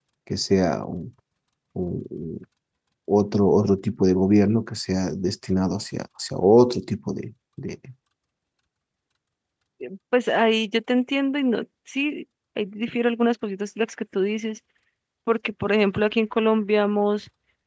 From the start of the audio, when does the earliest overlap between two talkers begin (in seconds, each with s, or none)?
none